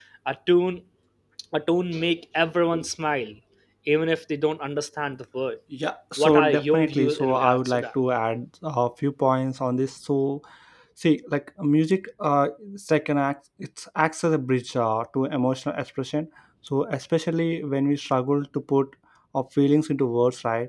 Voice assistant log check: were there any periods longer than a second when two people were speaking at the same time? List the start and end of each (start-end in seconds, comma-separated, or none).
6.2-7.9